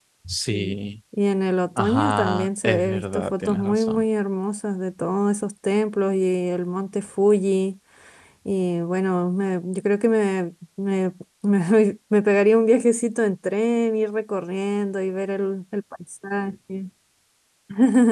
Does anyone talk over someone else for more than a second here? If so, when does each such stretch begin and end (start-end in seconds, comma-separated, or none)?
1.8-4.0